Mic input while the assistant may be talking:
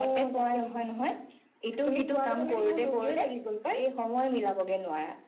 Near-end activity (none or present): none